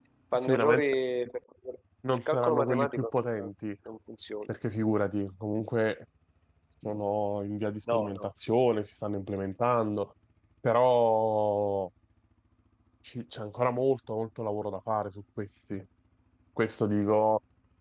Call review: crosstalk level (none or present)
present